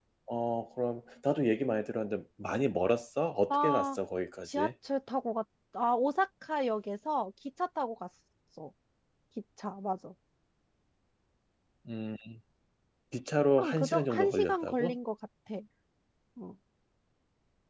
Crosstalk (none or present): present